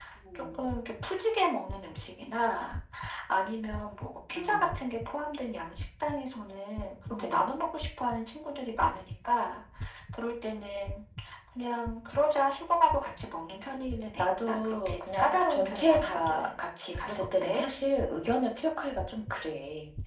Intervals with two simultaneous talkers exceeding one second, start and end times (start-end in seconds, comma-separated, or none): 14.2-16.6